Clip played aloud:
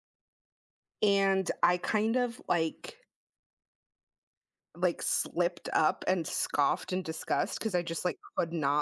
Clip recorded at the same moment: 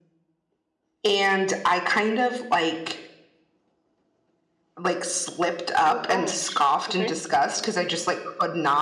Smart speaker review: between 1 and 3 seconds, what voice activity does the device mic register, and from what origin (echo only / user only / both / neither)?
echo only